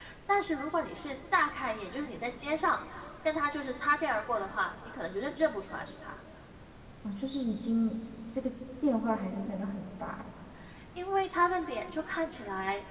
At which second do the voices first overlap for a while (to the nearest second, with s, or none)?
none